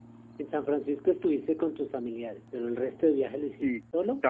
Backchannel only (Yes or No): No